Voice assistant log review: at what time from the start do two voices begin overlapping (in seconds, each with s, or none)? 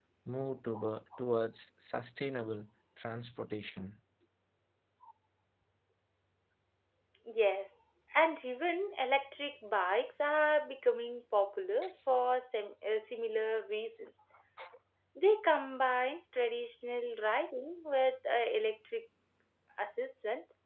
none